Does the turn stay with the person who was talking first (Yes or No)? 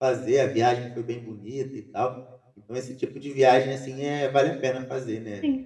No